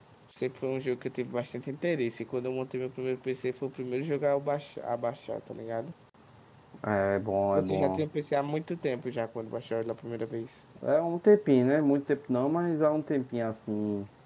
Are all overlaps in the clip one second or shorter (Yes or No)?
Yes